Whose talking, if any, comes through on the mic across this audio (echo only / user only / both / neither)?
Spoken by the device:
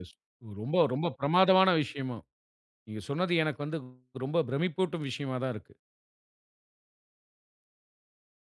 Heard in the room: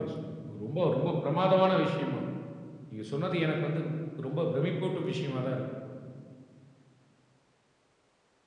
echo only